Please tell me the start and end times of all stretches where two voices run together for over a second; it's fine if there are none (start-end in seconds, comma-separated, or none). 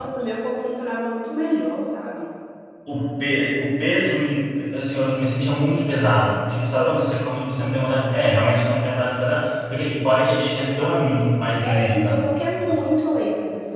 11.6-12.9